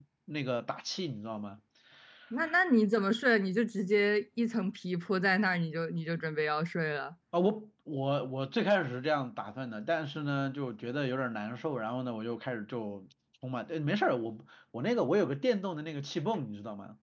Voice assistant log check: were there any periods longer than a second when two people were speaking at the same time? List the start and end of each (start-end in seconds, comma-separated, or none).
none